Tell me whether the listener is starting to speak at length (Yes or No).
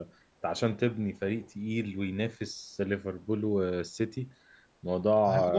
No